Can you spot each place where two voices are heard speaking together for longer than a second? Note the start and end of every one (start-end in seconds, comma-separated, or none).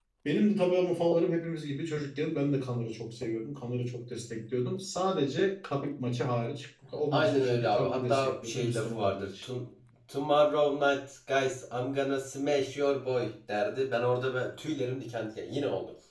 7.1-9.4